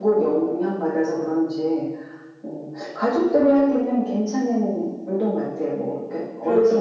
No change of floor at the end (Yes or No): Yes